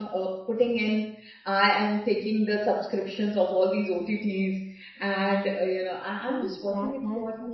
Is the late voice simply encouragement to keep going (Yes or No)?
No